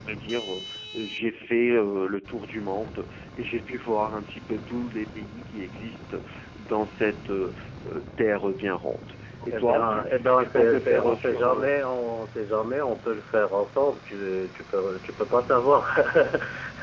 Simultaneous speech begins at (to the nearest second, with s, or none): 9 s